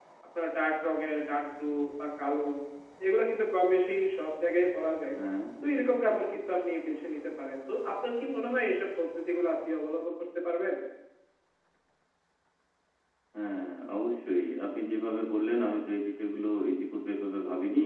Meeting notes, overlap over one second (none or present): none